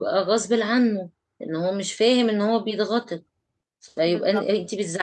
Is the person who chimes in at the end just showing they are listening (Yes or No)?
Yes